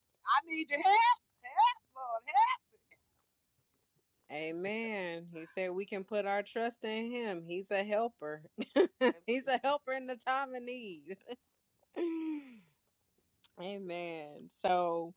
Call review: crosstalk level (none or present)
none